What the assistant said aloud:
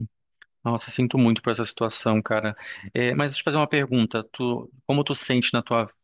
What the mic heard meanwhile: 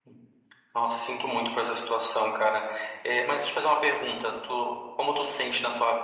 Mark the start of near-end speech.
none

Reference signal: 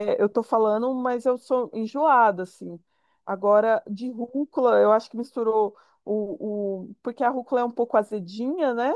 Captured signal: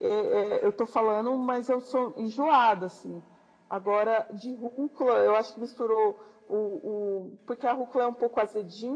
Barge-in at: none

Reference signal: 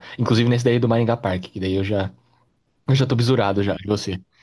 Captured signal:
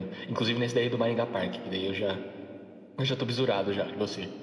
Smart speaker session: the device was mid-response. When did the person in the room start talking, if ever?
none

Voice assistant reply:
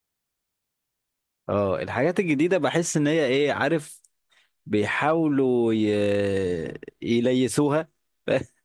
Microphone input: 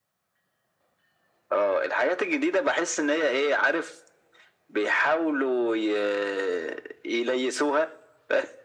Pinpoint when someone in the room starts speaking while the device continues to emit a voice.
none

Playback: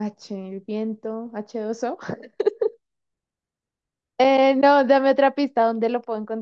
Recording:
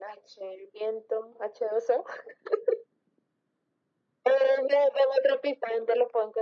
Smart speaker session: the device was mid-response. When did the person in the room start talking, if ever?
none

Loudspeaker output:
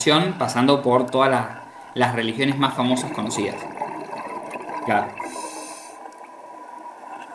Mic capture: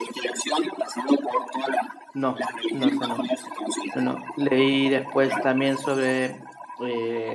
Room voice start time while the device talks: 2.1 s

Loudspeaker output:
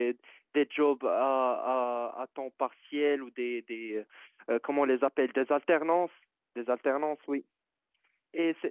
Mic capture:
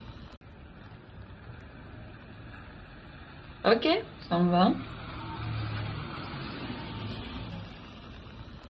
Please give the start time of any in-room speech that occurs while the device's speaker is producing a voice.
3.6 s

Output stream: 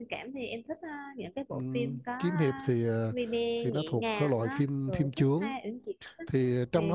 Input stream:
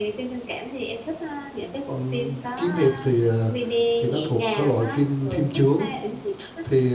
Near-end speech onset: none

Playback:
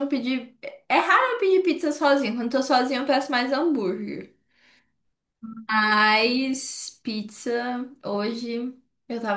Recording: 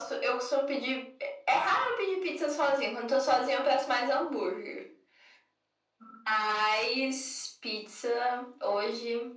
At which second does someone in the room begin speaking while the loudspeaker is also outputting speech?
none

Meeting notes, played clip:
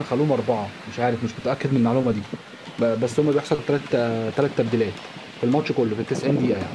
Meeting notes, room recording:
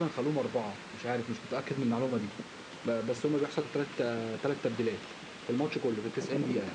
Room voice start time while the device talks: none

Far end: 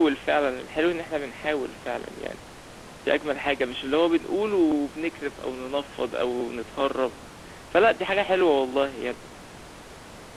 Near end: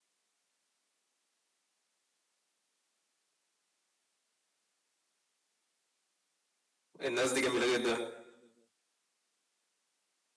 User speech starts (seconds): 7.0 s

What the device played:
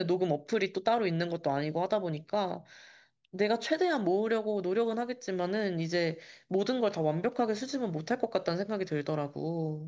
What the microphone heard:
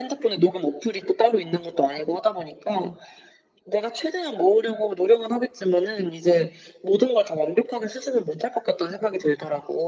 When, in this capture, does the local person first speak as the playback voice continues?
none

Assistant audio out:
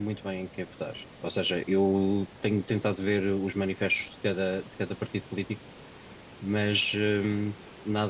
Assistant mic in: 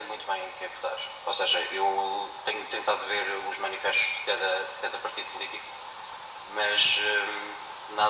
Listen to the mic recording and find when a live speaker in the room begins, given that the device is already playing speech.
none

